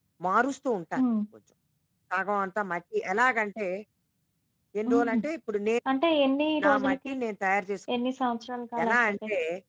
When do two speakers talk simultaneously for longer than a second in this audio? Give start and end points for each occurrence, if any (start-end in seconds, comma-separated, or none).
none